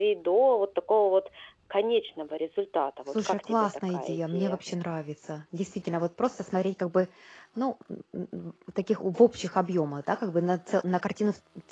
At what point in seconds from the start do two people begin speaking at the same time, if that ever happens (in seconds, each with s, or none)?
3.1 s